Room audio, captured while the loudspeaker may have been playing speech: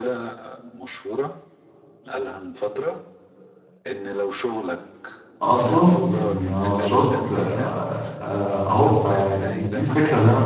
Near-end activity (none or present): present